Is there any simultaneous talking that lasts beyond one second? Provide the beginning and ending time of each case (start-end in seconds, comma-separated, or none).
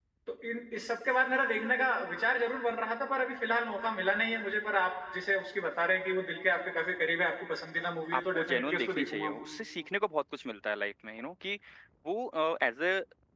8.1-9.4